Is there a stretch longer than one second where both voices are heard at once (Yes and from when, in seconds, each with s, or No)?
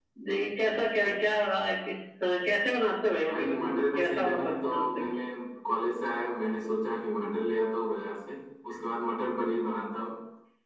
Yes, from 3.3 s